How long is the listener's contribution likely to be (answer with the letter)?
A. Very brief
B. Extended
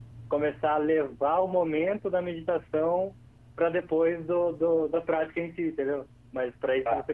A